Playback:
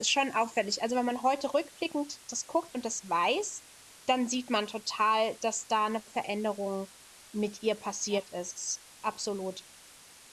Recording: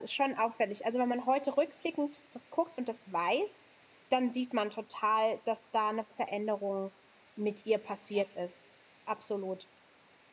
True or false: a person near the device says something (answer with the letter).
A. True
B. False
B